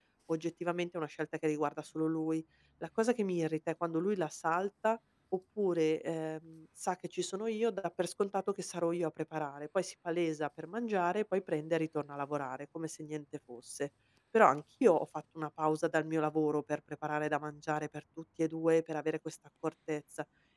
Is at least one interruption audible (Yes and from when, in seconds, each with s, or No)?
No